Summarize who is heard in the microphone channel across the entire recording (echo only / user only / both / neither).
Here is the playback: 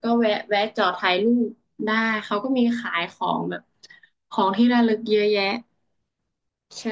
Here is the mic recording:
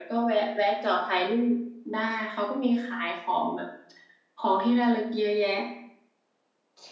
echo only